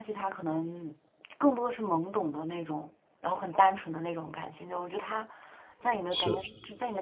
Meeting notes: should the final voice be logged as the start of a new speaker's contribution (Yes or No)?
No